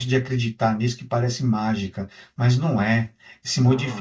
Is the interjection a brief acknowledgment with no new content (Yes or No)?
Yes